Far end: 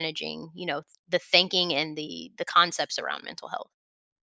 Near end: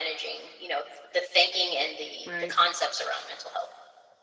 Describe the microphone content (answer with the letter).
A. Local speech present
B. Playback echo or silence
A